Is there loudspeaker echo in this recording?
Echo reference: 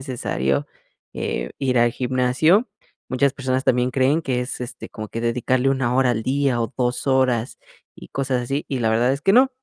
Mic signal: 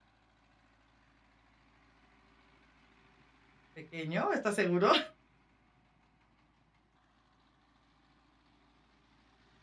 No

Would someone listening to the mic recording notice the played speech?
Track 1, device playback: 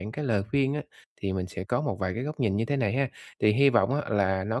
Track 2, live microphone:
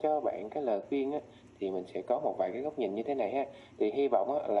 Yes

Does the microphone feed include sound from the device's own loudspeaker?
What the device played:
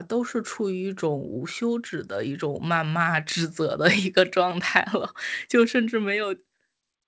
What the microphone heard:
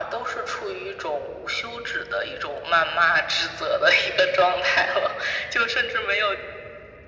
Yes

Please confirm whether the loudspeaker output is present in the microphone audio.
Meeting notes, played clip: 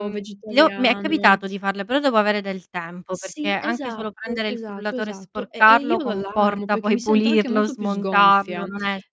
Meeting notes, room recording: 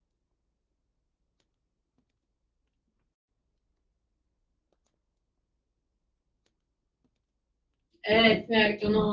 No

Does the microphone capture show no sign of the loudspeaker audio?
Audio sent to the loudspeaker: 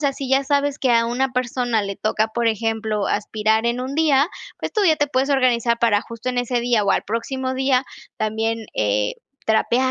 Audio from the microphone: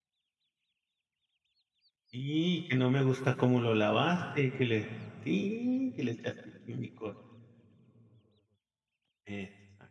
Yes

